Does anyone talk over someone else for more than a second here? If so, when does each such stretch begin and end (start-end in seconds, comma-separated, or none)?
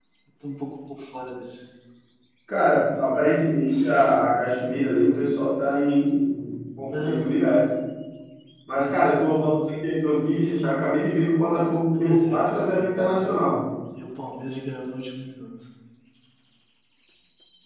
11.9-13.2